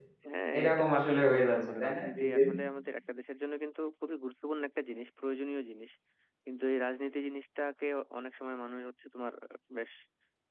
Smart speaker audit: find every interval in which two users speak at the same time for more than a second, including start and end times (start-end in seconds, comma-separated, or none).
0.6-2.5